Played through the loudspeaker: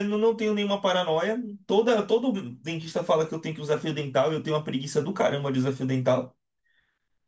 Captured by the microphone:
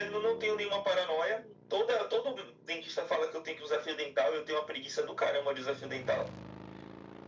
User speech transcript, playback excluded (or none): none